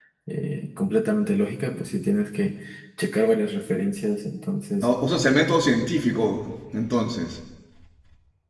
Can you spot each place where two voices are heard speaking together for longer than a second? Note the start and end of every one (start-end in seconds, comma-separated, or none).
none